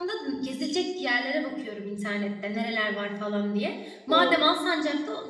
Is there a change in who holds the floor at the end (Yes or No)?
No